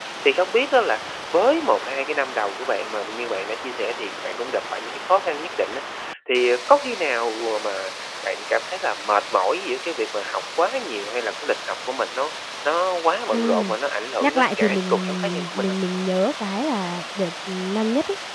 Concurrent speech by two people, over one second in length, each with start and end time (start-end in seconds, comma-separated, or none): 14.2-15.8